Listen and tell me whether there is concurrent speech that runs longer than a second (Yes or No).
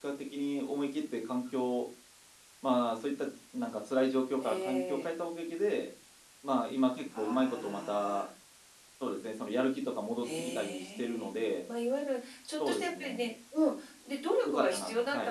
Yes